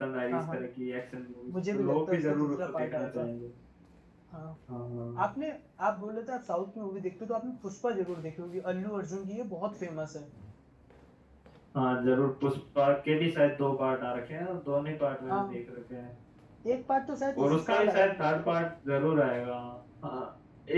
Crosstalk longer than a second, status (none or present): present